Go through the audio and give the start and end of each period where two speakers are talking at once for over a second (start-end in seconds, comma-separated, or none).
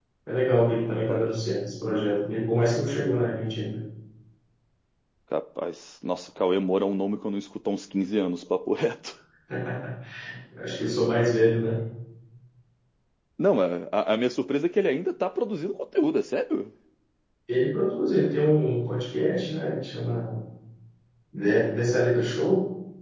none